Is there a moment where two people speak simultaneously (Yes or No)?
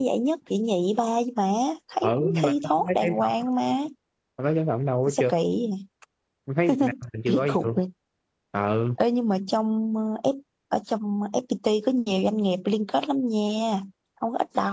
Yes